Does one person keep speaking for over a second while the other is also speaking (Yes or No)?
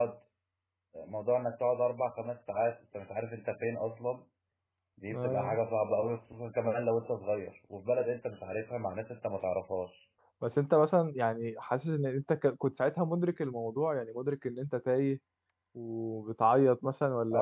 No